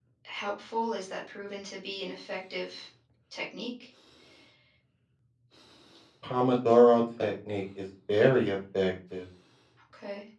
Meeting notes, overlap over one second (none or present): none